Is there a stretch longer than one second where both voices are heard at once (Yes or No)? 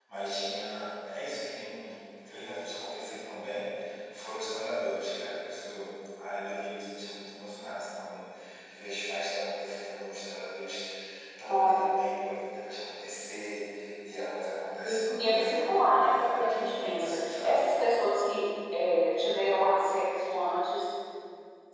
Yes